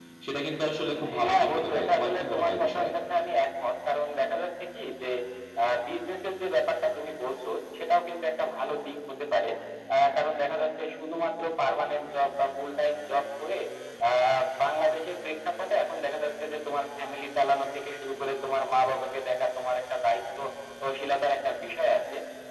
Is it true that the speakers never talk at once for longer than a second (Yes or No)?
No